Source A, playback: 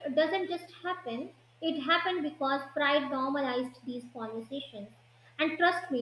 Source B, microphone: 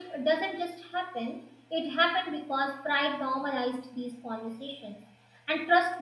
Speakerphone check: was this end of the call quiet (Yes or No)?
Yes